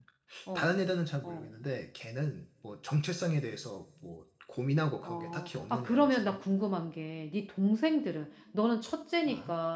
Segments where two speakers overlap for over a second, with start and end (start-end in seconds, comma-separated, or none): 5.0-6.4